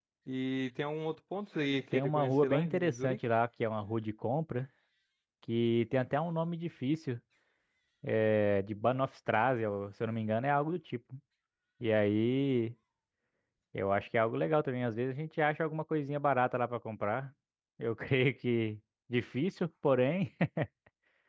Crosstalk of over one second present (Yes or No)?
Yes